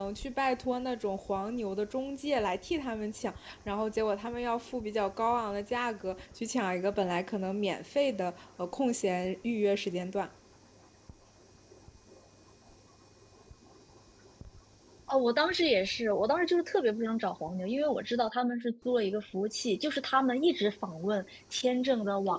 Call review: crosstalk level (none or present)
none